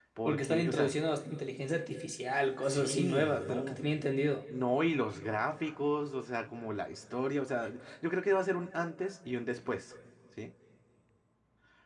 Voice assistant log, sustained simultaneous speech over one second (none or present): present